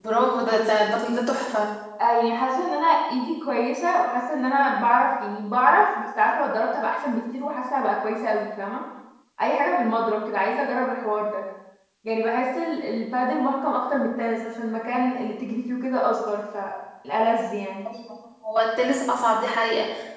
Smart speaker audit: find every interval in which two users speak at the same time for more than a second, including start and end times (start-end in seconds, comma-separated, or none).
none